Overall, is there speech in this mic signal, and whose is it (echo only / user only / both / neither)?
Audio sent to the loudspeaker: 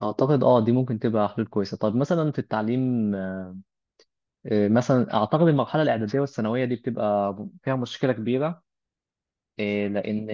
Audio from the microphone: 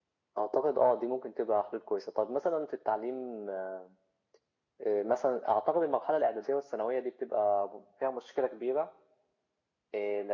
echo only